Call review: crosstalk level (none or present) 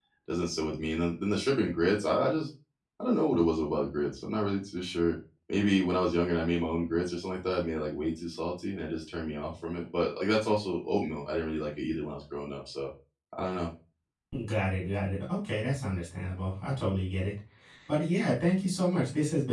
none